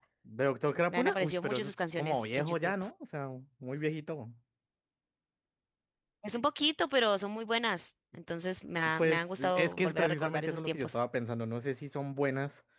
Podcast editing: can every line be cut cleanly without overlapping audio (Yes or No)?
No